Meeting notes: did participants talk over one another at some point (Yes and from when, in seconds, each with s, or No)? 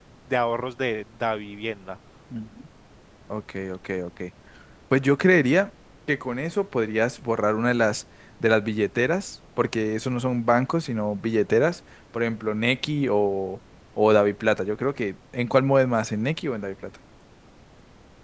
No